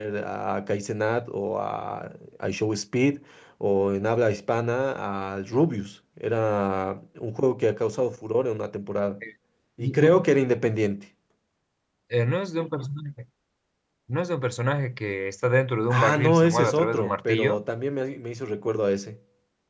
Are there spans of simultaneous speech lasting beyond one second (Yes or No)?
Yes